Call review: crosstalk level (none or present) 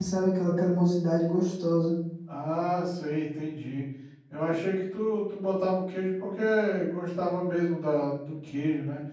none